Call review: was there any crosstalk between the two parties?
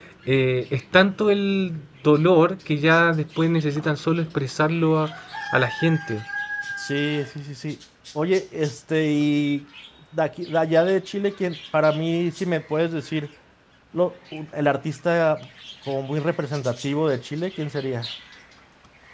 No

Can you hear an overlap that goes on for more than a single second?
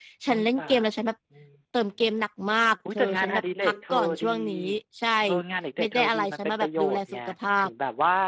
Yes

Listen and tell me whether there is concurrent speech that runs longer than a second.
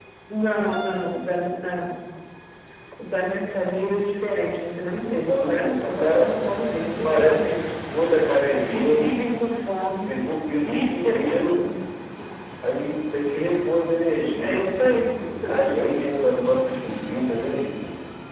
Yes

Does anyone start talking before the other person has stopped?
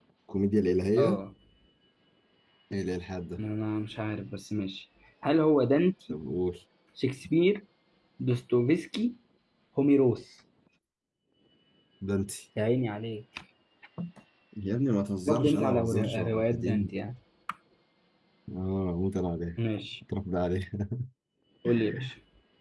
Yes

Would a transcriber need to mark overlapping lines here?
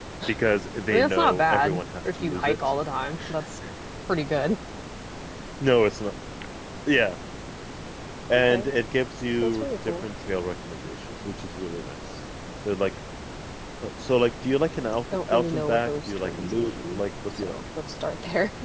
Yes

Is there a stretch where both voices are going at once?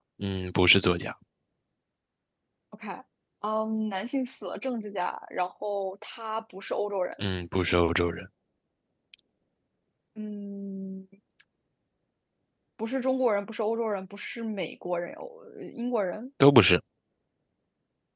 No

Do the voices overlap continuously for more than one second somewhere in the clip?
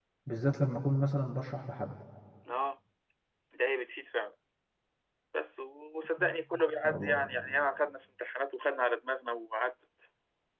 No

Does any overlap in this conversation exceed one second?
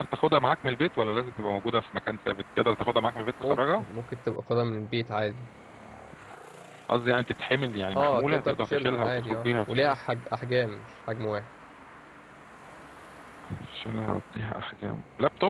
Yes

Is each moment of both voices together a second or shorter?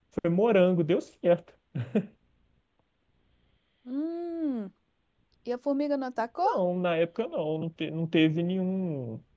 Yes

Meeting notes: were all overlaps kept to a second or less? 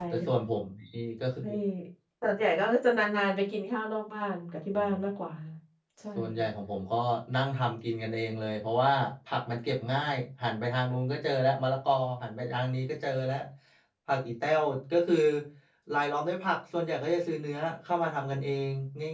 Yes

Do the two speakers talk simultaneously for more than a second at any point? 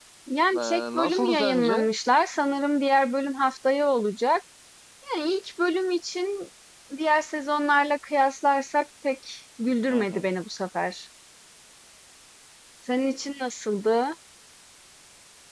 Yes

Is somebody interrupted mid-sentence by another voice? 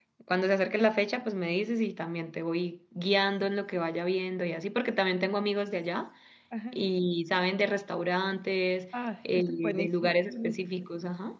Yes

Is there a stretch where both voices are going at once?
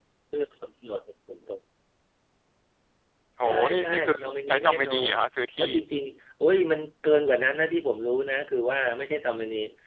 Yes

